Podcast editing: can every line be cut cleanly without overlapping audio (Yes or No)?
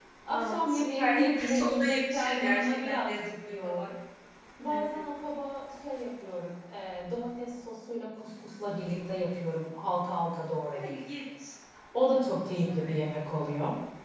No